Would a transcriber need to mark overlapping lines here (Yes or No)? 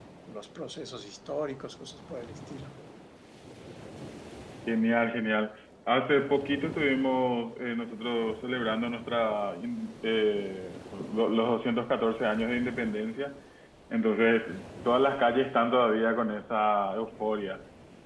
No